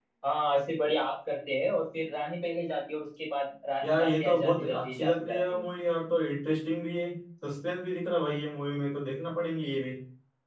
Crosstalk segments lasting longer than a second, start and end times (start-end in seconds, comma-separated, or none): 3.8-5.7